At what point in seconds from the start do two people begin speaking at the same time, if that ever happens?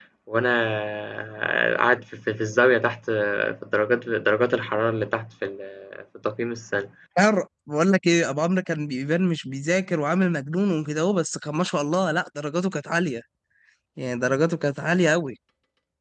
none

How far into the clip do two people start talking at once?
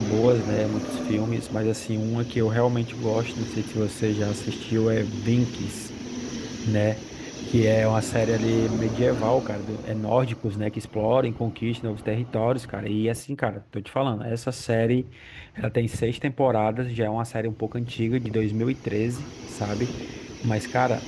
none

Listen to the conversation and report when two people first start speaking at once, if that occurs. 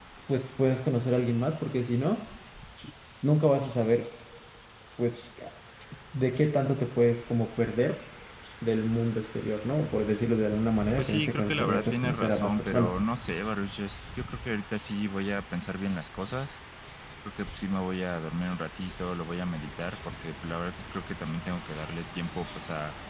11.0 s

